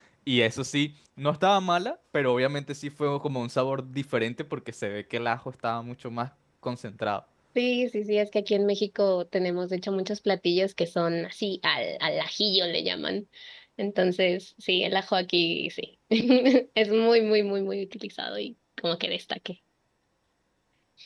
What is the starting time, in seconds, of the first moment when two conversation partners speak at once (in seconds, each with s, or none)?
none